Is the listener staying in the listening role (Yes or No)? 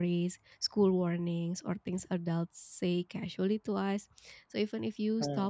Yes